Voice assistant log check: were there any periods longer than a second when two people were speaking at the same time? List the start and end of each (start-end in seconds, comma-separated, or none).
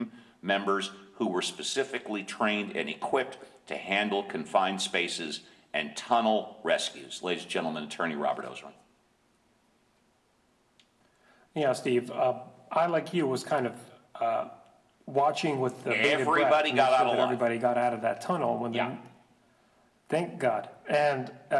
15.9-17.4